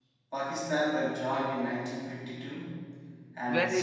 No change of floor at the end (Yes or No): No